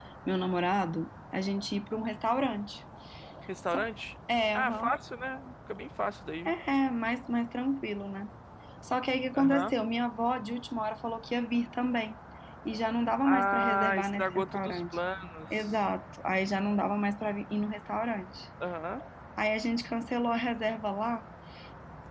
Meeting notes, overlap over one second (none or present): present